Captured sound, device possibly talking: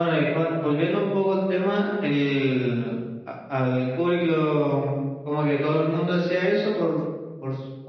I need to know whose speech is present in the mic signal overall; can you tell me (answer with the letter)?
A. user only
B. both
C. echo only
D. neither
B